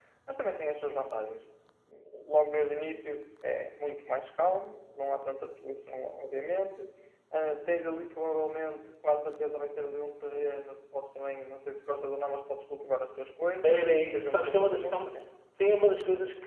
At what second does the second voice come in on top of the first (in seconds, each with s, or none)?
13.6 s